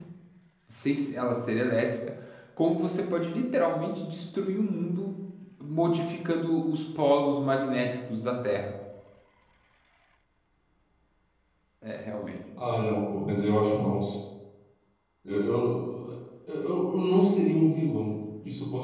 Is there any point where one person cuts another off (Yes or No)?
No